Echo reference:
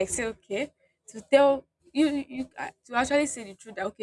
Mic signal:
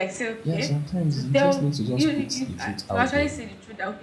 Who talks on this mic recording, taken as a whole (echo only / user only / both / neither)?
both